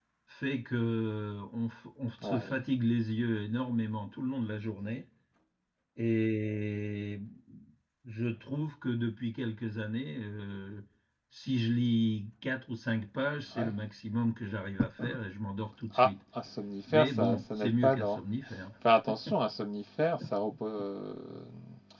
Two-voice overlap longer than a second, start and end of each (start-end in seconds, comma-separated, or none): 16.9-18.2